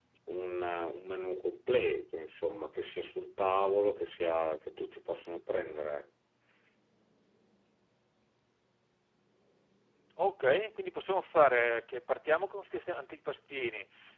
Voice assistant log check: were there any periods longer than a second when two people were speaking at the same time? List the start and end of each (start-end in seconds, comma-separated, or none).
none